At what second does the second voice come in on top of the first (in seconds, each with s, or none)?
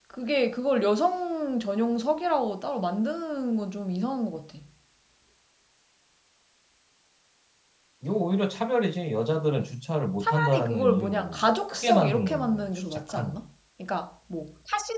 10.2 s